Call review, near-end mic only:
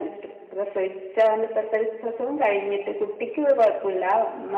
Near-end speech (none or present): none